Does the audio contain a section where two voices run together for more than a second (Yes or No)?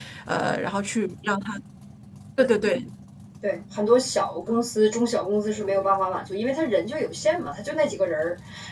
No